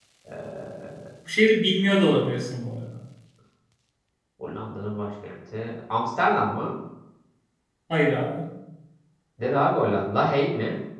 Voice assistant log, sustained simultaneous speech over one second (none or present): none